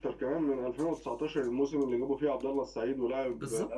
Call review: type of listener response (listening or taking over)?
taking over